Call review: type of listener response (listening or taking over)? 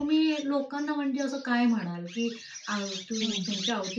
listening